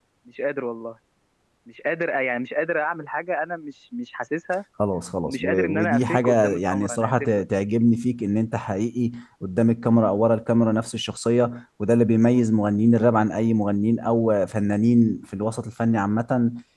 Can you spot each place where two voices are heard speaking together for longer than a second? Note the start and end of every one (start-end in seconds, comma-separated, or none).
5.2-7.4